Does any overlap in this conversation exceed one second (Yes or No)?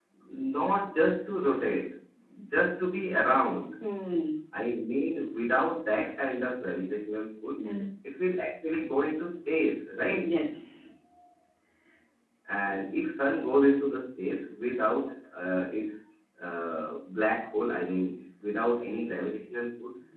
No